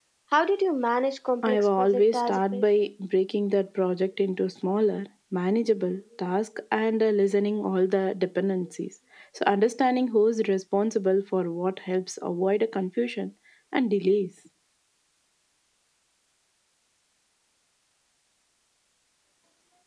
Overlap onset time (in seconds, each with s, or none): 1.4 s